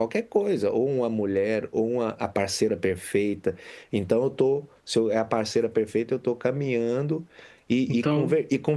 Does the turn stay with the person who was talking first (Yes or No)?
Yes